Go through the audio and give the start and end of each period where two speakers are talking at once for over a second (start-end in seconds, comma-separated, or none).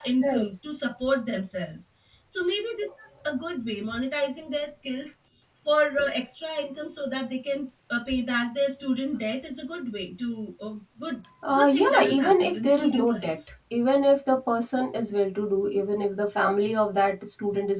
11.5-13.3